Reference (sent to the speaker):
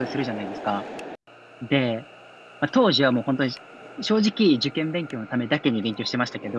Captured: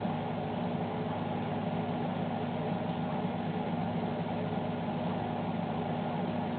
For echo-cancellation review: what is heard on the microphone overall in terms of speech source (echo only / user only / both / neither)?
neither